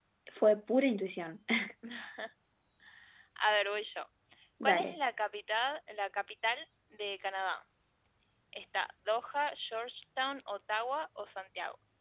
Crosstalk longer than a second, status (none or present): none